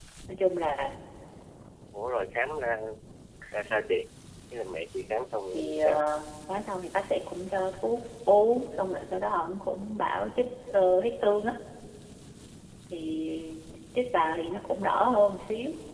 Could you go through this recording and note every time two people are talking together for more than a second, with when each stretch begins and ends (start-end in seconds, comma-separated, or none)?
none